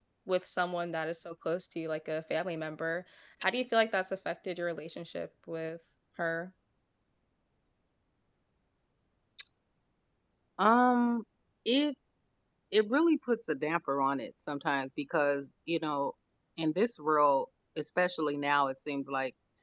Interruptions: none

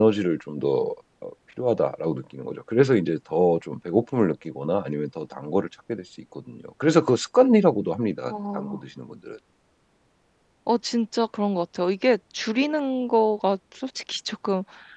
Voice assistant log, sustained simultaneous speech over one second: none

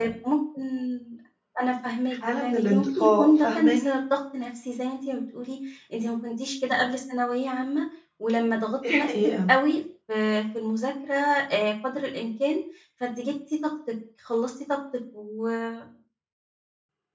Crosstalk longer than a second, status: present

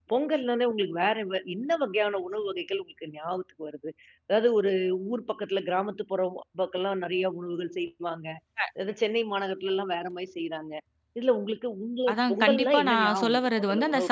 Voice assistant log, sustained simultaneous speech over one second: present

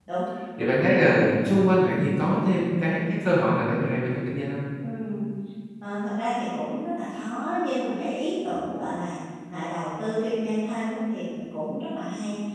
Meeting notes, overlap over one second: none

